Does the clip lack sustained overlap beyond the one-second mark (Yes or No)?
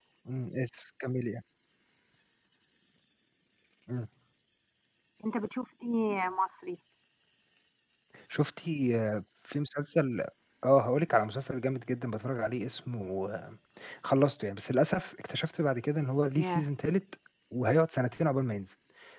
Yes